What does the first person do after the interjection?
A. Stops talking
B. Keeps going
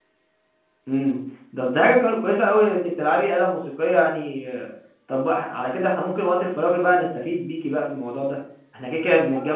B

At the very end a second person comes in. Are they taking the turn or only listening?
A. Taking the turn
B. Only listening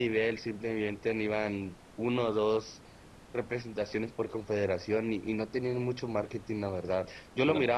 B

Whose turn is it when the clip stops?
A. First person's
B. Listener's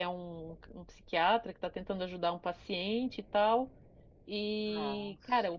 A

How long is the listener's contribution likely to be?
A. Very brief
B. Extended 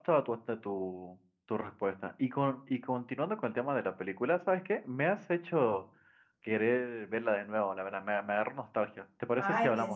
B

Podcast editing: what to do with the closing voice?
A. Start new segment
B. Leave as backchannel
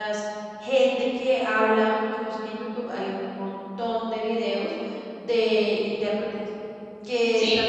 B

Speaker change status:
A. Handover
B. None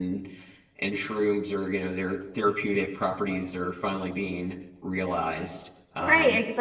A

